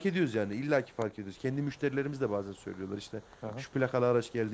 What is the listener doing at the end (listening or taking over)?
listening